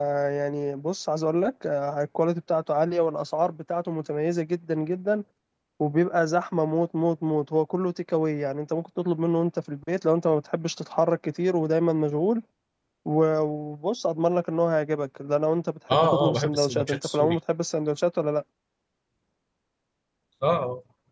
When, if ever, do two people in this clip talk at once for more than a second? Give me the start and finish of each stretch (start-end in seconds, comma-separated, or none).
15.9-17.4